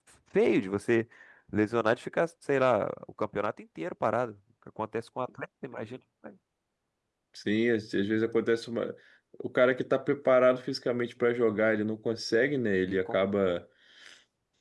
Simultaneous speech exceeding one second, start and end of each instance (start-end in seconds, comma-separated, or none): none